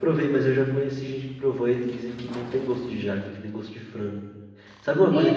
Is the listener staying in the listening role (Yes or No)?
No